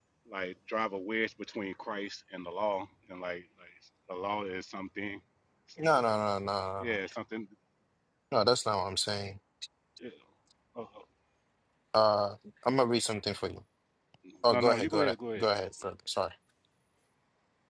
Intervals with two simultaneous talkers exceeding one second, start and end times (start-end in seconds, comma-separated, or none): 14.5-15.7